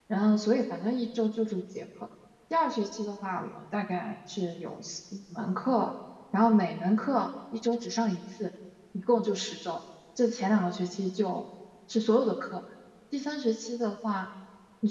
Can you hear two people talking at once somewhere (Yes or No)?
No